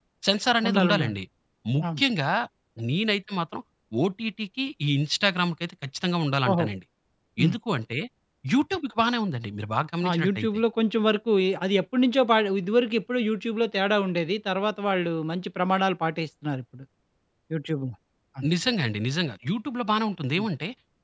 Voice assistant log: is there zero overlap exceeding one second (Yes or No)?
Yes